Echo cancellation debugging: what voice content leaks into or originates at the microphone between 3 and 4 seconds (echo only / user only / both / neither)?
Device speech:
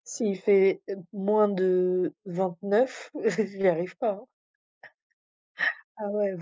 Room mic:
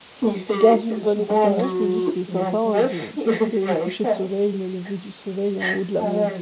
both